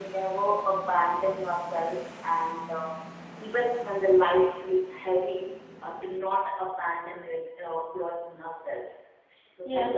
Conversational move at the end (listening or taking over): taking over